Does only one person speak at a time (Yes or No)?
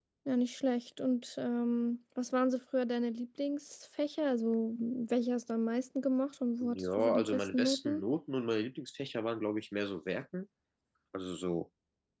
No